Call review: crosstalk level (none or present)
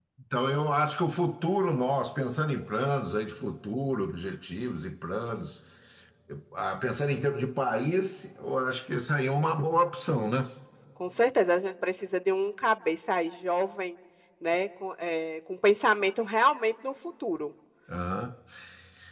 none